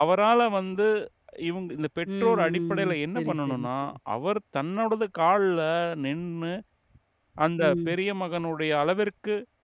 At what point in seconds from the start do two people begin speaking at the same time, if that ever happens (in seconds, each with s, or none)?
2.1 s